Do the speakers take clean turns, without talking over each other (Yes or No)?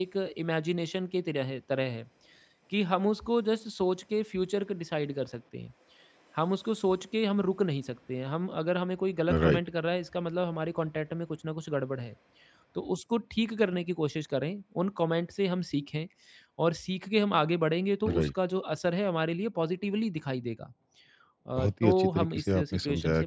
No